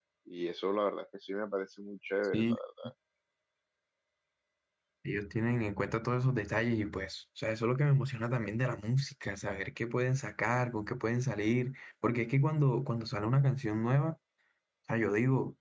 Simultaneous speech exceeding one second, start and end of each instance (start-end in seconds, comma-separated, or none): none